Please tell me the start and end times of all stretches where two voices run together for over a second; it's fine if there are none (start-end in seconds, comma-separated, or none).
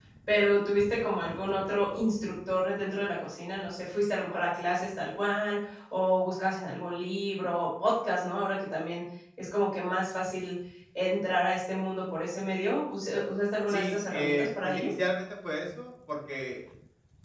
13.7-14.9